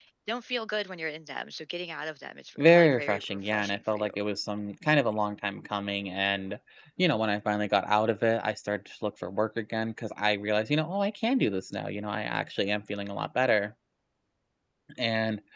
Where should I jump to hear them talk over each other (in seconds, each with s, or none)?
2.6 s